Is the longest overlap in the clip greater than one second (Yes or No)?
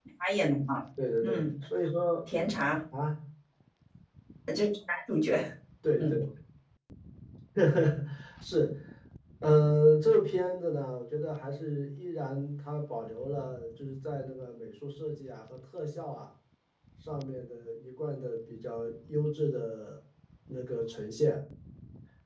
No